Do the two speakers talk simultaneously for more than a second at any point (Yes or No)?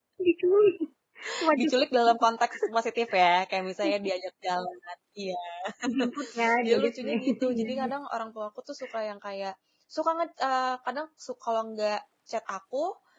Yes